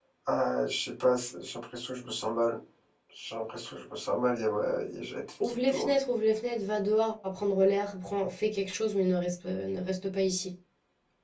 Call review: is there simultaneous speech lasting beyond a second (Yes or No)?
No